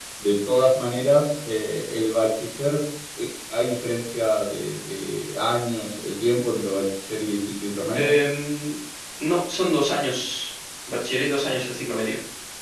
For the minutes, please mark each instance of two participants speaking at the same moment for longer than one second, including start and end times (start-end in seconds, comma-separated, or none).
none